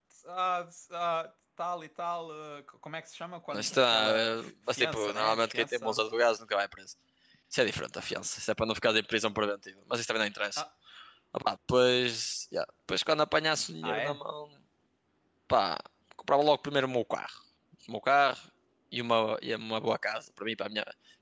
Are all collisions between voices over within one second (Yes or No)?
No